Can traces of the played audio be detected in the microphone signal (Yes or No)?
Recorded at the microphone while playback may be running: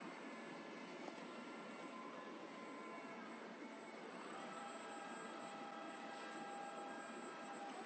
No